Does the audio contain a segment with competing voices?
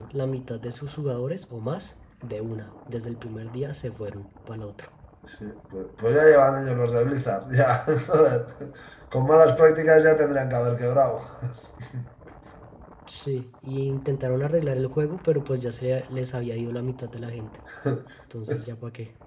No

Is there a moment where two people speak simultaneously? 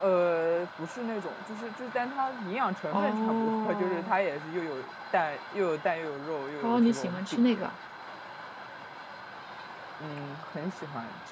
Yes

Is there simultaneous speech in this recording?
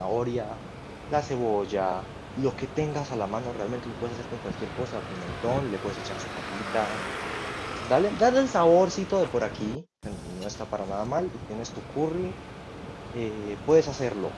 No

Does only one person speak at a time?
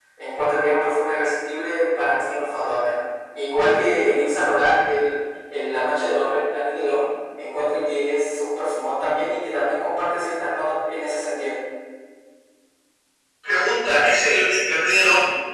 Yes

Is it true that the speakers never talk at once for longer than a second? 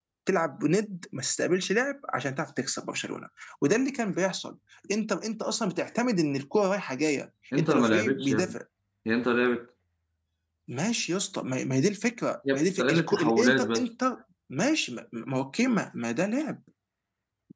No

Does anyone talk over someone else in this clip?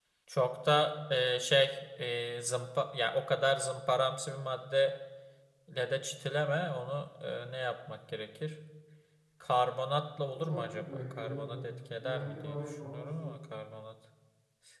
Yes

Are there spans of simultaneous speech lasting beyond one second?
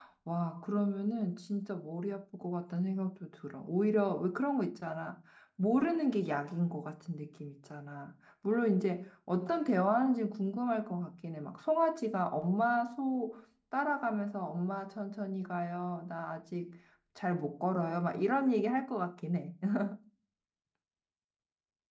No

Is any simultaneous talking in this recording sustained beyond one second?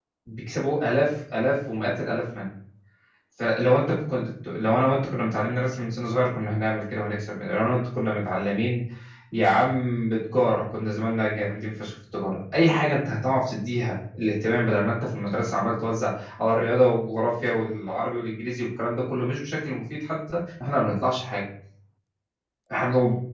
No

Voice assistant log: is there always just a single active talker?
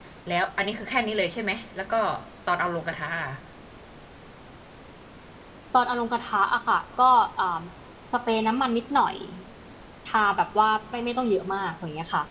Yes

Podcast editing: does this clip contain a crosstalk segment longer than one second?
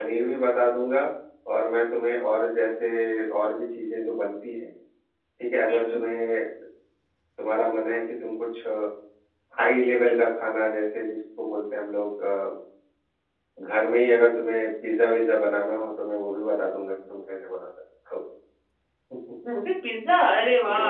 No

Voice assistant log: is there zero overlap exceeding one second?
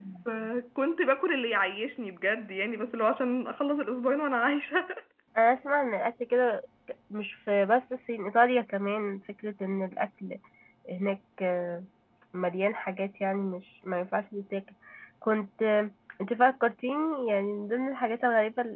Yes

